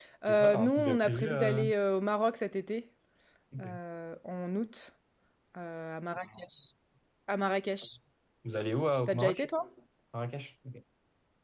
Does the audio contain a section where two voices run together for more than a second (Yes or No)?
Yes